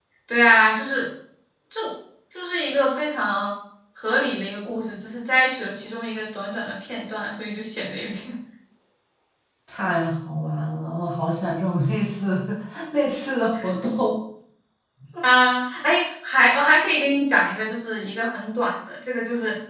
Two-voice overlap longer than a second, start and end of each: none

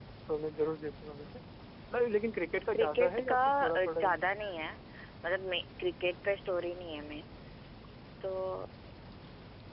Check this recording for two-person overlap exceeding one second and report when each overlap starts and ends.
2.7-4.2

